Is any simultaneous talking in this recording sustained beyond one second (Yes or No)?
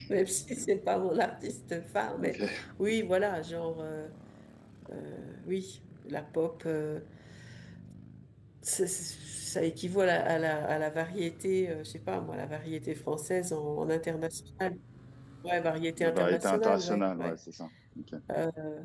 Yes